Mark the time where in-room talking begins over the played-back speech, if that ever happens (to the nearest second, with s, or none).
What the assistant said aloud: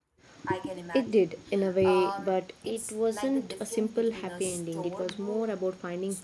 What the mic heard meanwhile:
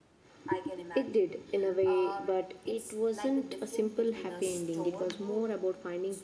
none